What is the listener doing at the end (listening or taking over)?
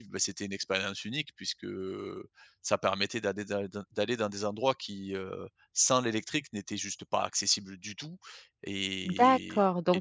taking over